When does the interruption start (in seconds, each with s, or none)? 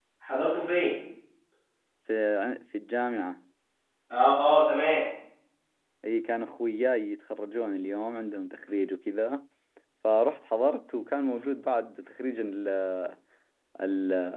none